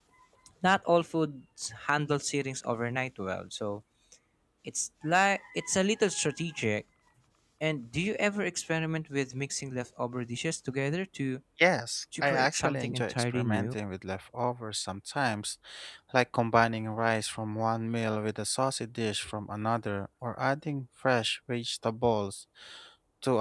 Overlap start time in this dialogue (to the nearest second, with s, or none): 12 s